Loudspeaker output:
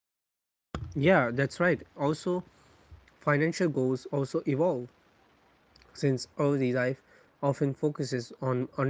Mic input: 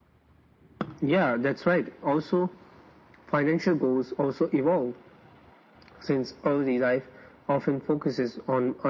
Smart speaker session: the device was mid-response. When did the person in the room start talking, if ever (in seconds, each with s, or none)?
none